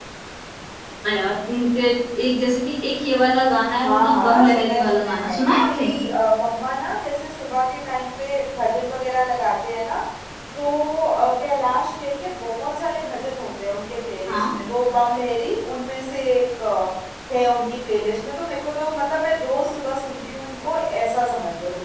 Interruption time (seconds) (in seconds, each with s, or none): 3.8 s